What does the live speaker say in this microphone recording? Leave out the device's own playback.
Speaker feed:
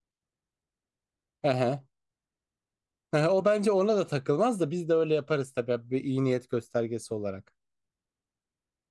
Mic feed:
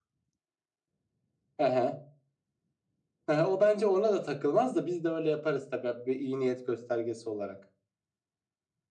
none

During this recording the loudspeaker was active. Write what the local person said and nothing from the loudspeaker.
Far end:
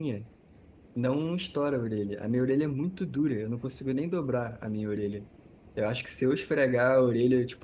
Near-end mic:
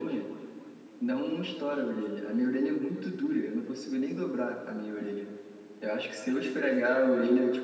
none

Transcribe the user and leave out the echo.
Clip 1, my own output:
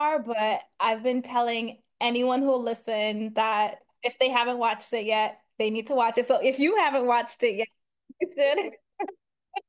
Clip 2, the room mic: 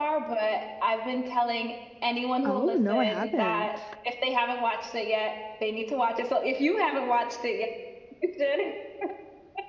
Oh, no, I haven't.

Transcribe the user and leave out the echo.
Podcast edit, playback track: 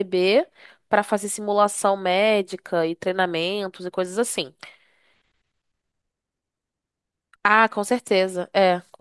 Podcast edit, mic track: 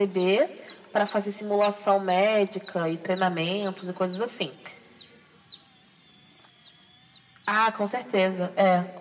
none

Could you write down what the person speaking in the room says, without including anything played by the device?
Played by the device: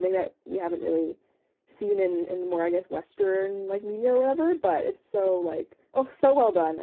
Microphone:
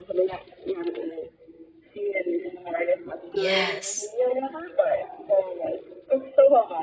Yes.

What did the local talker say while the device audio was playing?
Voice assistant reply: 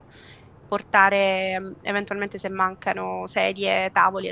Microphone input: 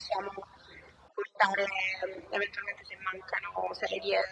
none

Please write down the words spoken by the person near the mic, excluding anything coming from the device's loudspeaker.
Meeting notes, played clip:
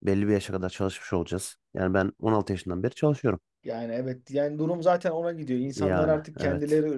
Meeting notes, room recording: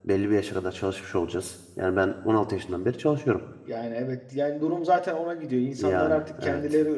none

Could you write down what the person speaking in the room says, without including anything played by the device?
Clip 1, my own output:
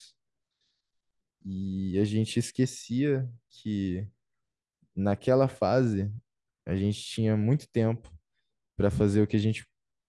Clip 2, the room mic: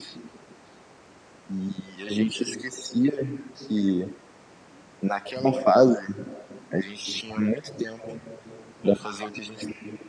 none

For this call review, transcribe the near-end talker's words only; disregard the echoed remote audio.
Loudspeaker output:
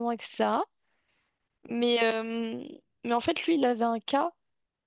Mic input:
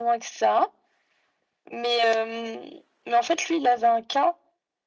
none

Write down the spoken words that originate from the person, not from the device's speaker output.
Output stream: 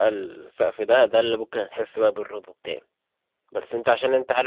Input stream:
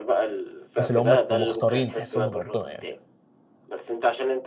الناس اللي هم كانوا مختارين تحسهم من ربنا يعني

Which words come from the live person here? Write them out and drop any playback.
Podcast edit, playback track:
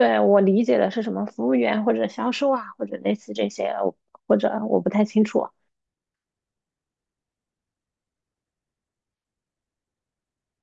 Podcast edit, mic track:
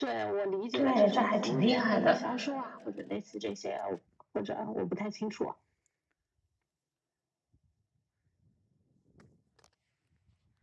对，这还挺厉害的。

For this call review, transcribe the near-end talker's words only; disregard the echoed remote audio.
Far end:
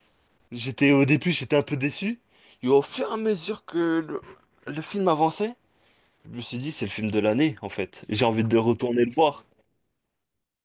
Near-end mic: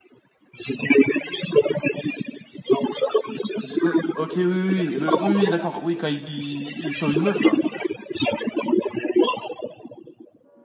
Jason- Ok, oui, oui, oui, le... oui, oui, d'accord. Oui, quand ils ils ils sauvent une meuf, là.

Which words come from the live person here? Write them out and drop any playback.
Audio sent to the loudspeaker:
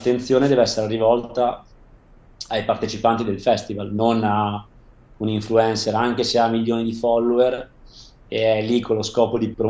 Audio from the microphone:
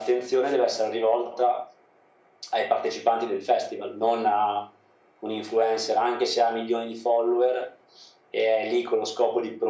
none

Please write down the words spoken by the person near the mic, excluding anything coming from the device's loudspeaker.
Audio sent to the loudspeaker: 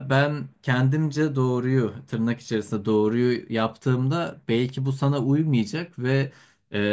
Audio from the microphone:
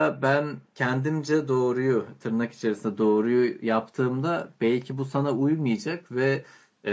none

